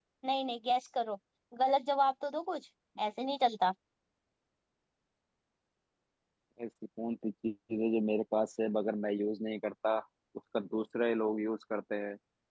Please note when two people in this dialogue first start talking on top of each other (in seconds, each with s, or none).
none